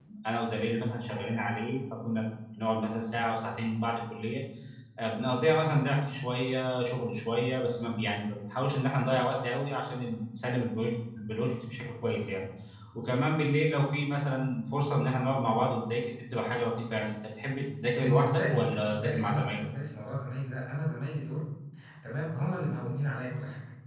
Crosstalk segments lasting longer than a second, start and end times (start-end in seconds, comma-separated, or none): 18.0-19.6